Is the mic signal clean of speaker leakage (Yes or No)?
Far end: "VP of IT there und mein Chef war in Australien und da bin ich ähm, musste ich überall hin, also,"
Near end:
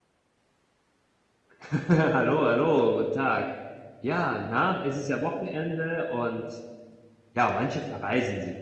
Yes